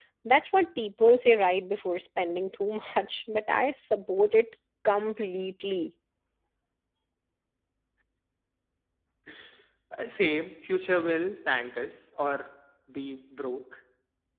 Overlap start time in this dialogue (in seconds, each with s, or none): none